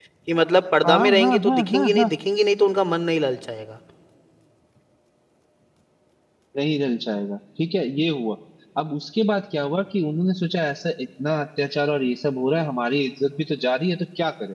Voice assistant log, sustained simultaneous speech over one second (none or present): present